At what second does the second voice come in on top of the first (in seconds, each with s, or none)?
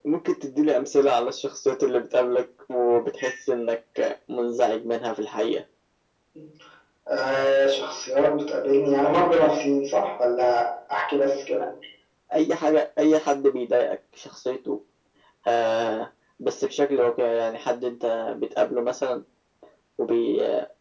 none